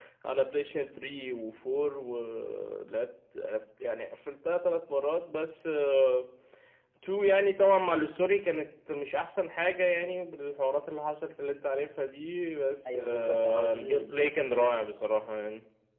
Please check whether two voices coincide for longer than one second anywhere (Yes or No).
Yes